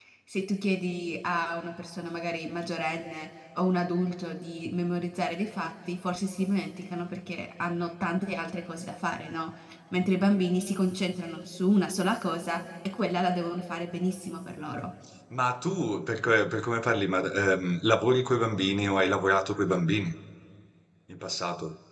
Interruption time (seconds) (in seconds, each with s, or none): none